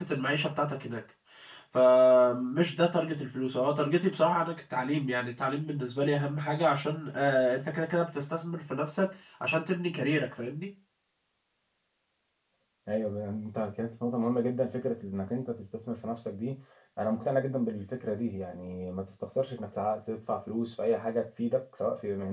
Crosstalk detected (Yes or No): No